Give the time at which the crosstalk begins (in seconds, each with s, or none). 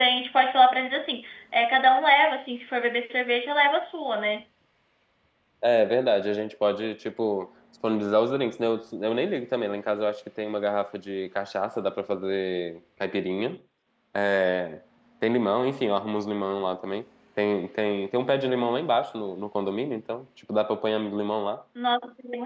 none